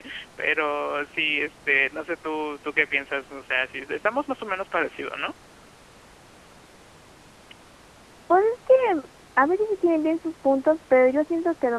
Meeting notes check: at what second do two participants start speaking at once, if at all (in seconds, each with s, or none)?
none